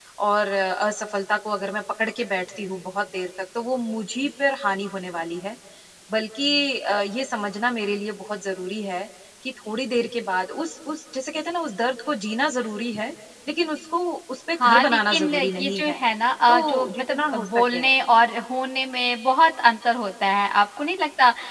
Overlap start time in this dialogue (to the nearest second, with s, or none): 15 s